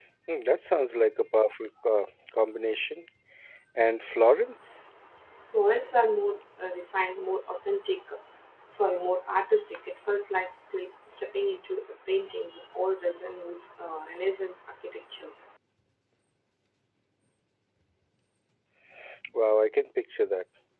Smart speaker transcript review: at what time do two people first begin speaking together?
none

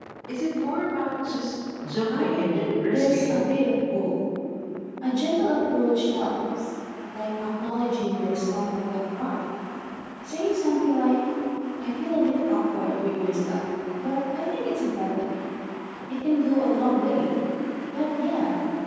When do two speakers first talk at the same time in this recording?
2.1 s

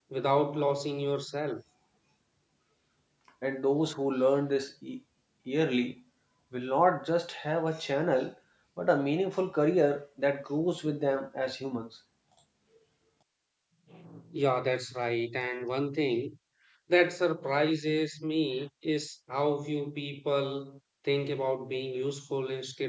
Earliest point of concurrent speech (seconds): none

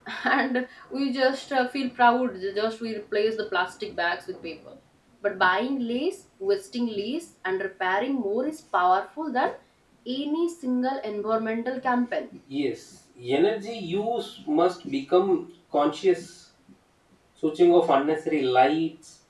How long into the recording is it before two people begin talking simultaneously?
none

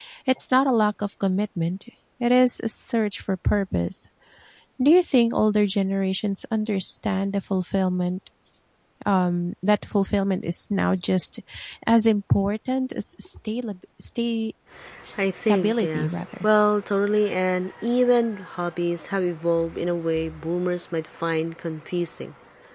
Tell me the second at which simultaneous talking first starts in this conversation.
15.2 s

